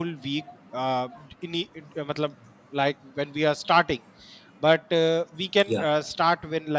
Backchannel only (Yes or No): Yes